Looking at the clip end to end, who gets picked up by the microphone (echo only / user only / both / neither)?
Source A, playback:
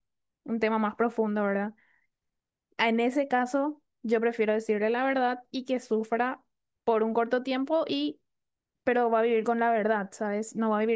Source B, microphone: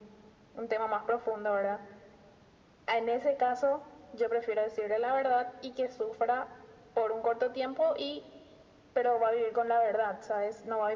echo only